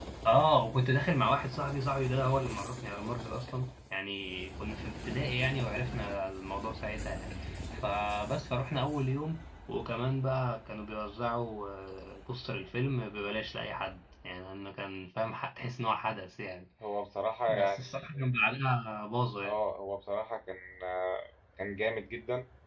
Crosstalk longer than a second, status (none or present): none